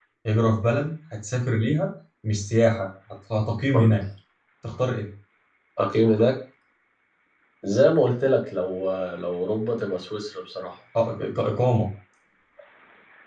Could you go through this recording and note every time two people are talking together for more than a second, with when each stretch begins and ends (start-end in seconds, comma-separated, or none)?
none